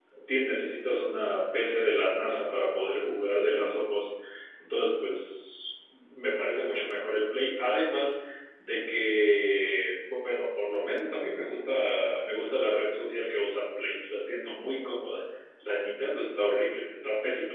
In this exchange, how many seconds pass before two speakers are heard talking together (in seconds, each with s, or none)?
none